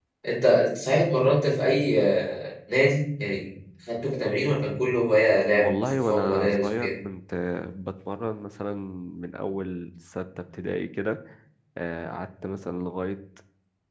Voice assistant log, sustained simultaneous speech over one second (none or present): present